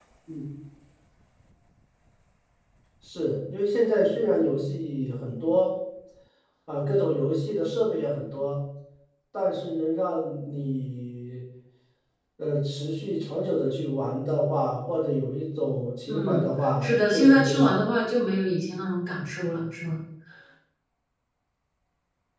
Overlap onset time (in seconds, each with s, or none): 16.1 s